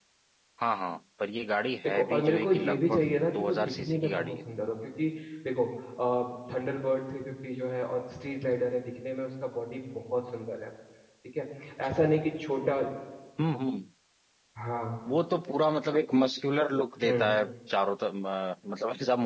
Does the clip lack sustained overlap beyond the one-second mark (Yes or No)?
No